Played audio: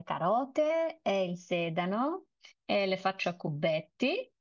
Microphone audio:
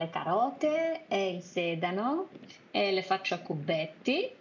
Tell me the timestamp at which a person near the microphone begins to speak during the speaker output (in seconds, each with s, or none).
none